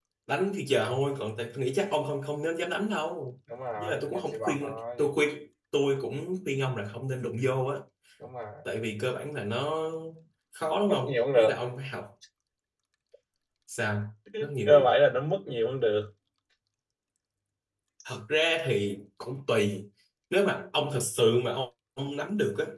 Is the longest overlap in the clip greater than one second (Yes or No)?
Yes